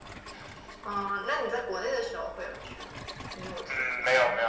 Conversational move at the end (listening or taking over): taking over